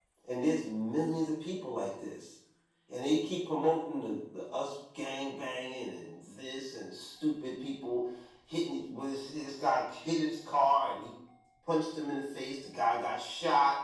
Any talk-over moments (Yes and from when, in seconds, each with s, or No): No